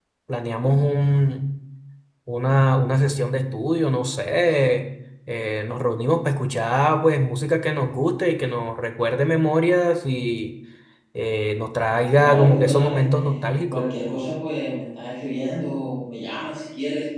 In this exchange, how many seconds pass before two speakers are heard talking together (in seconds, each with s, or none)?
12.2 s